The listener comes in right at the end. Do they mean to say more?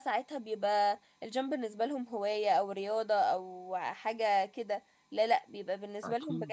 No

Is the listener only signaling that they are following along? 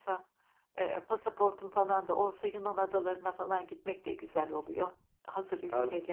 No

